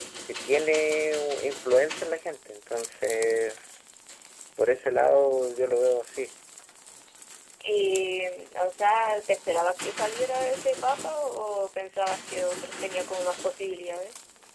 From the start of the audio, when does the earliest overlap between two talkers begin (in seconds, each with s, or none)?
none